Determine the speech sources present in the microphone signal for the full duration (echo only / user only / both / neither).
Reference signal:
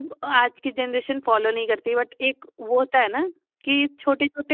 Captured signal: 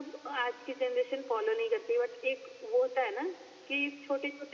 echo only